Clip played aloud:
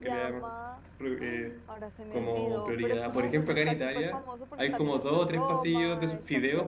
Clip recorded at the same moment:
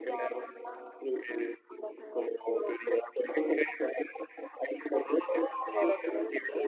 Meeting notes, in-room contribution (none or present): present